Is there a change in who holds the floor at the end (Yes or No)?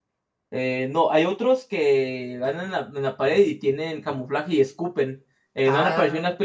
No